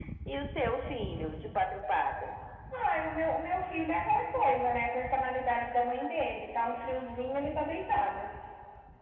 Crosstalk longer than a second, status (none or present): none